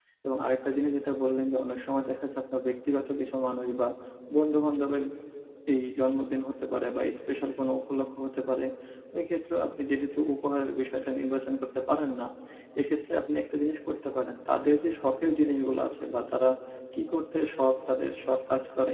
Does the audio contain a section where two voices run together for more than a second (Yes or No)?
No